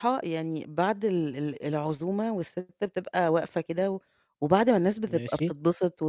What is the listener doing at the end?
listening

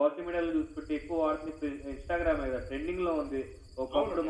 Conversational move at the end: listening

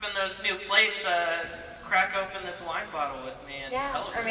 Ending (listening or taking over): taking over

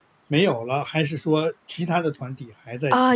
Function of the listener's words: taking over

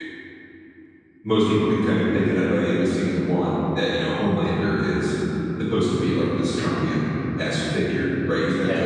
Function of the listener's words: listening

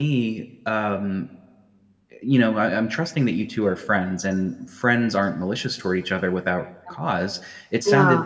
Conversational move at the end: listening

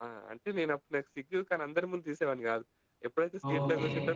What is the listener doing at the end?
listening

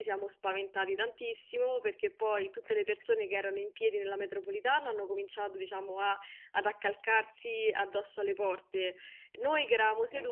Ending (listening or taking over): listening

